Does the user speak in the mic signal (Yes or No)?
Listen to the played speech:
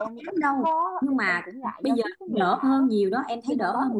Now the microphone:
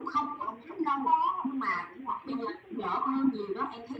No